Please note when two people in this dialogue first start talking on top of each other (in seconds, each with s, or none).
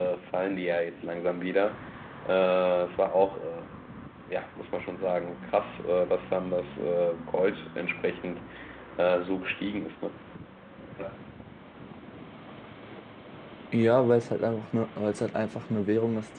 none